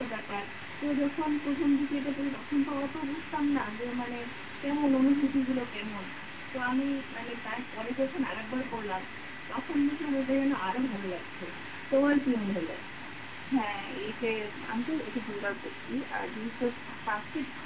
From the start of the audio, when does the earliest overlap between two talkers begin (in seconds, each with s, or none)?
none